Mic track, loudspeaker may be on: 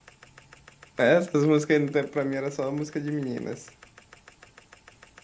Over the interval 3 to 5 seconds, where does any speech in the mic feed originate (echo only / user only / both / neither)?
user only